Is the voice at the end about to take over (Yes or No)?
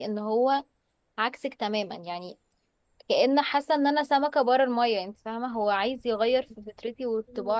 Yes